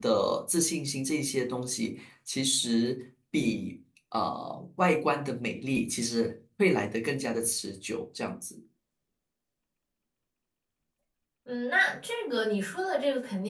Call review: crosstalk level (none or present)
none